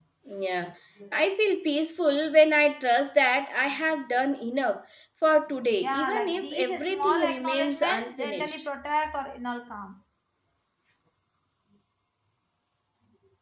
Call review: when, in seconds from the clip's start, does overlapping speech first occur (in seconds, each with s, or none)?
5.8 s